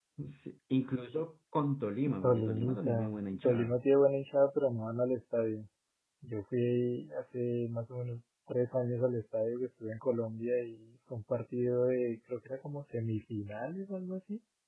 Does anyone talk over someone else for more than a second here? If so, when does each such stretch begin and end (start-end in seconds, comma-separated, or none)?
2.2-3.7